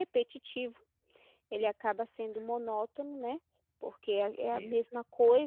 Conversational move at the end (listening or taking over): listening